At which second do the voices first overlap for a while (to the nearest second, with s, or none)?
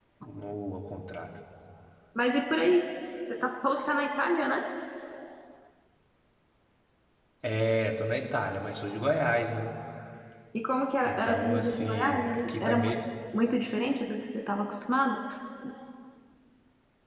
11 s